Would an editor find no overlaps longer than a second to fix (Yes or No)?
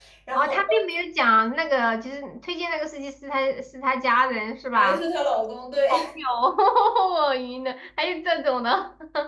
Yes